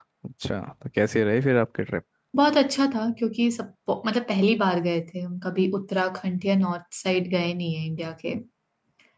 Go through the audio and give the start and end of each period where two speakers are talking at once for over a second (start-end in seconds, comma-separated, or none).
none